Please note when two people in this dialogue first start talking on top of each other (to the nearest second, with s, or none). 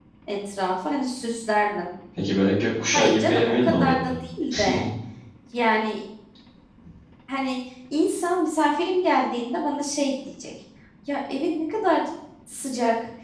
3 s